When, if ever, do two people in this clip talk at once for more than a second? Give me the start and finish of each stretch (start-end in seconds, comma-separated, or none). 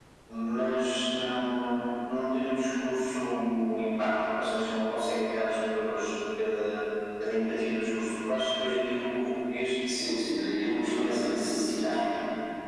10.6-12.0